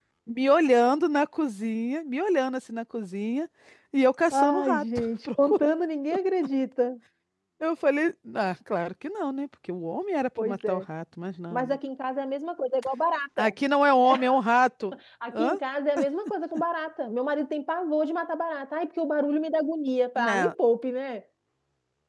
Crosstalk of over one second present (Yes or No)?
Yes